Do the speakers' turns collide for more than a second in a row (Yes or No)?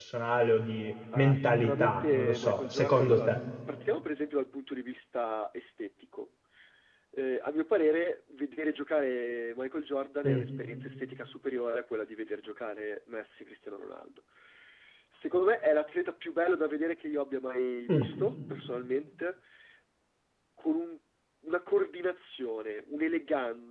Yes